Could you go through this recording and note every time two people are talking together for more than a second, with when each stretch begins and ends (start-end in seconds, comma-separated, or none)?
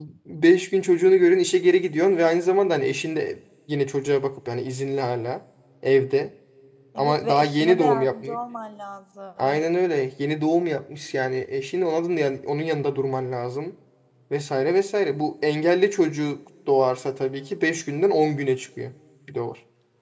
7.0-8.4